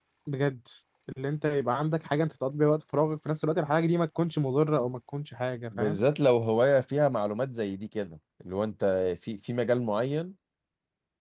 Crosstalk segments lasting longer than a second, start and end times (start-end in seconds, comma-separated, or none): none